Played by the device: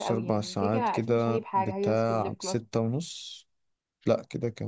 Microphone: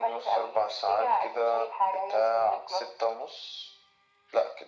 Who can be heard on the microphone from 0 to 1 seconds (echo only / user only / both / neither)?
echo only